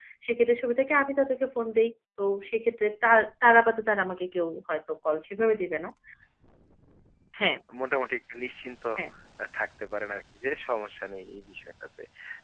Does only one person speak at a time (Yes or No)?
Yes